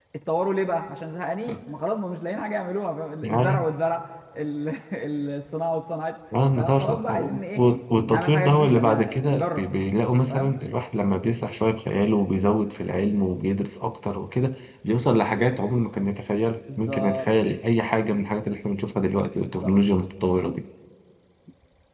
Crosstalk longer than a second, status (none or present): present